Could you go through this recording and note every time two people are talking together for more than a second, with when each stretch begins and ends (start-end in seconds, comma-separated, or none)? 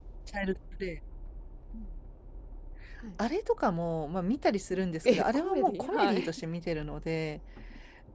5.0-6.3